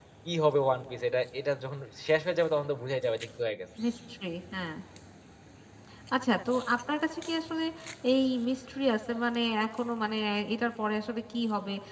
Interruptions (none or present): none